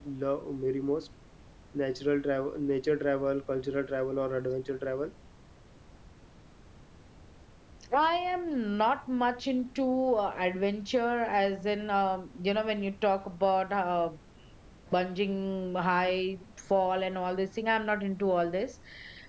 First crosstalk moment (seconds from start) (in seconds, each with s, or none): none